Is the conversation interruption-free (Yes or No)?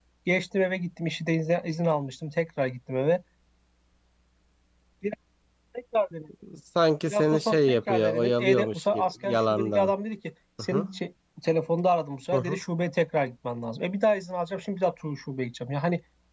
No